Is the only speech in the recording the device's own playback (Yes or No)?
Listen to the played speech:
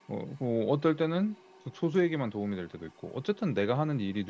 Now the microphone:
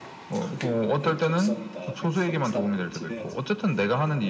No